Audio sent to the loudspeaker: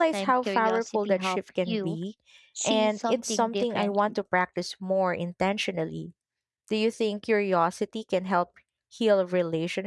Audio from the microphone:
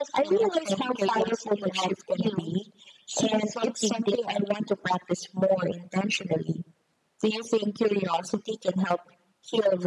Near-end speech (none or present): none